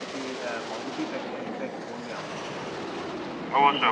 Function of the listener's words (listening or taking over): taking over